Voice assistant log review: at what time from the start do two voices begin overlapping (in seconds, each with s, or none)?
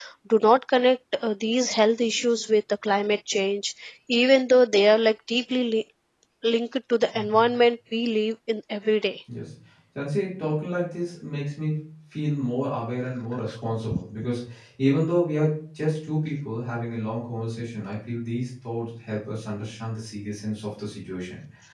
none